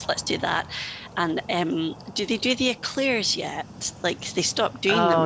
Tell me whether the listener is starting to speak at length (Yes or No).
Yes